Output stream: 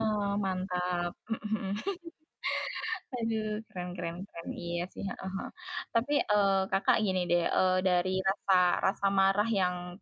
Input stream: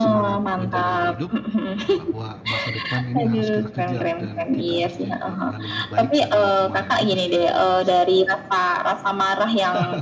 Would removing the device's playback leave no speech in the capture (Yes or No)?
No